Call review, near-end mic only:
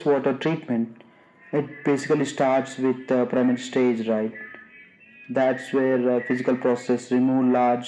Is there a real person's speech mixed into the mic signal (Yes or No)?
No